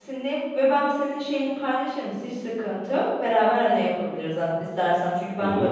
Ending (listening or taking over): listening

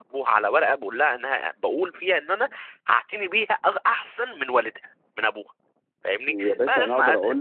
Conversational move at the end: taking over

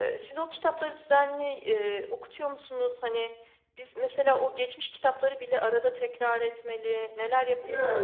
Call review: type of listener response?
taking over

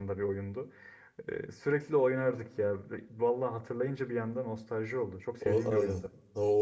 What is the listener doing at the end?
taking over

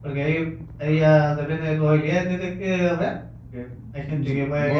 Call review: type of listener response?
listening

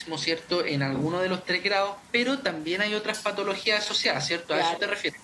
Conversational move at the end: taking over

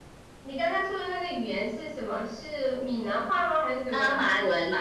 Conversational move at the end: taking over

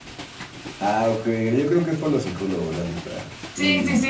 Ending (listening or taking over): taking over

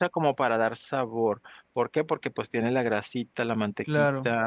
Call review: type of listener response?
listening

